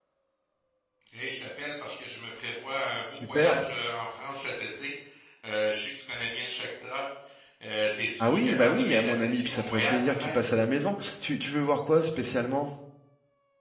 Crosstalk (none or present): present